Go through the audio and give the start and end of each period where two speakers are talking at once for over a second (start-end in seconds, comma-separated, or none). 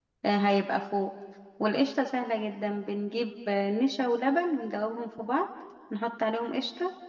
none